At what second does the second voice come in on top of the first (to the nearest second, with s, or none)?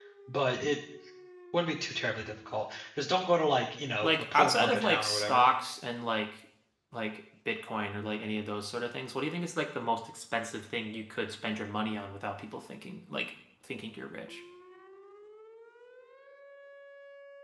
4 s